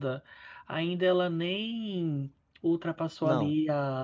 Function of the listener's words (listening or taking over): listening